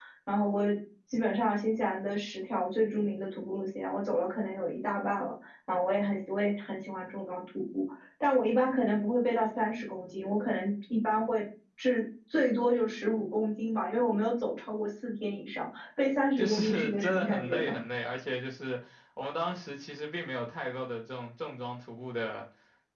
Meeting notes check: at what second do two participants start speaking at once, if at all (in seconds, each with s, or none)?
16.4 s